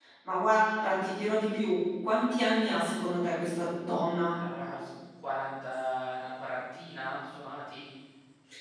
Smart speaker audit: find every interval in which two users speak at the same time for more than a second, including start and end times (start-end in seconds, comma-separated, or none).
none